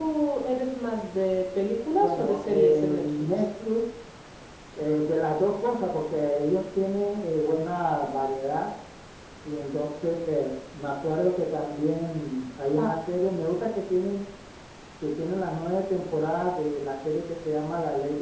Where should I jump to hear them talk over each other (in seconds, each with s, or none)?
2.0 s